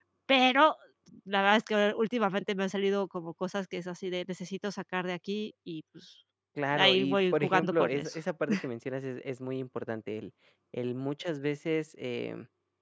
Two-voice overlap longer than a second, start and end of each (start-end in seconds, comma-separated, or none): 6.8-8.2